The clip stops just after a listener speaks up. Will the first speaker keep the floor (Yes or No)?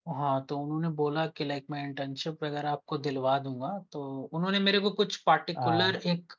Yes